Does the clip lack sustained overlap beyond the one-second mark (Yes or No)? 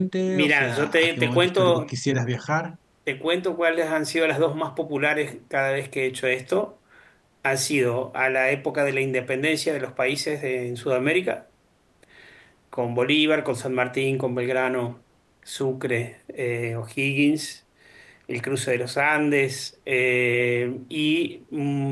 No